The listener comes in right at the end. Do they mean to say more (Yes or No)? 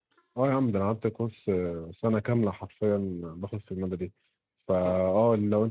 No